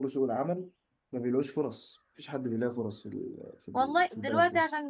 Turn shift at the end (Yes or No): Yes